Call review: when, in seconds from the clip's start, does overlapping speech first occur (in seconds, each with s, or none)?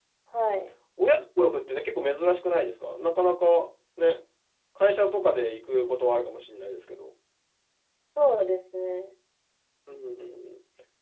none